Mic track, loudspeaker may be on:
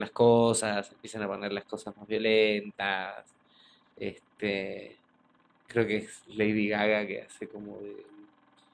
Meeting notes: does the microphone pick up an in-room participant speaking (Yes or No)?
Yes